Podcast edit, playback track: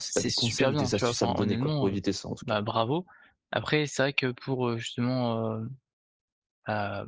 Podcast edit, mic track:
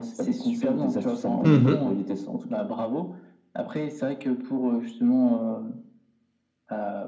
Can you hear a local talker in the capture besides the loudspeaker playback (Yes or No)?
Yes